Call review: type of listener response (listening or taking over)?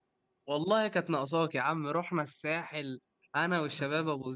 listening